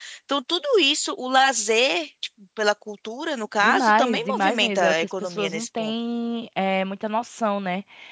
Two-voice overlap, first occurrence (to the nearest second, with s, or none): 4 s